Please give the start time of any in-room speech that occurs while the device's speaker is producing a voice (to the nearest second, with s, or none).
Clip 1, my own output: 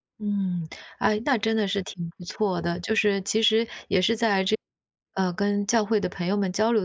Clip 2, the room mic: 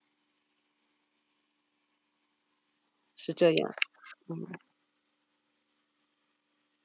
3 s